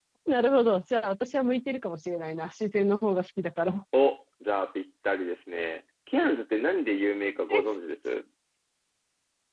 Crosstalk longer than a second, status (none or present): none